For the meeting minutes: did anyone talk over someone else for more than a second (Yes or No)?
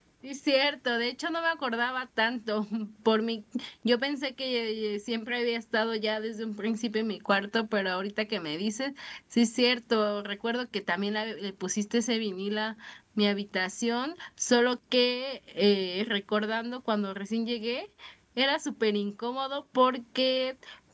No